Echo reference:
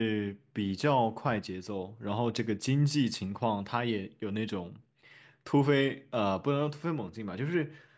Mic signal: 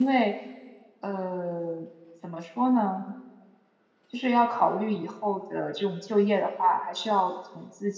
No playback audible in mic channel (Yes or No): Yes